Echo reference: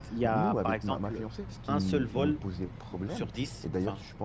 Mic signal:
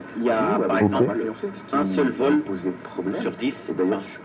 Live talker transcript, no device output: OK.

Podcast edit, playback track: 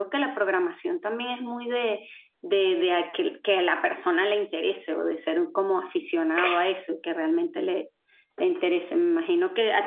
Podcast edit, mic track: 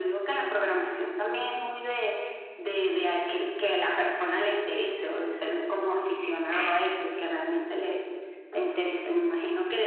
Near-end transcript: none

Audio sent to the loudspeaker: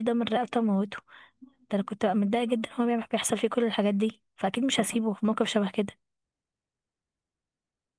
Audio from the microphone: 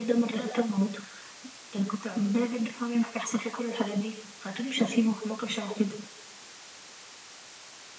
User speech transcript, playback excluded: none

